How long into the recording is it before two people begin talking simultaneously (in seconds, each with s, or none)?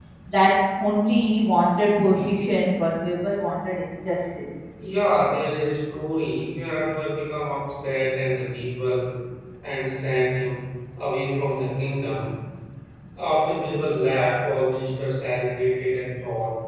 none